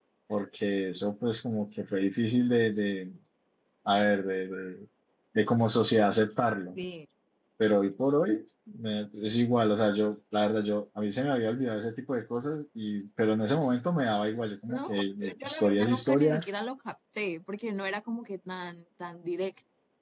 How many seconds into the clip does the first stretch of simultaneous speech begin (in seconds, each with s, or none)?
14.7 s